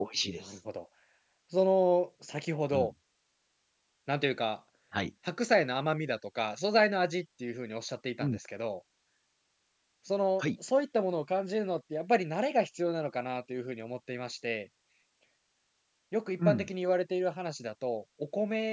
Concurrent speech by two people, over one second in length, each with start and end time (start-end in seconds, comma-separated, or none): none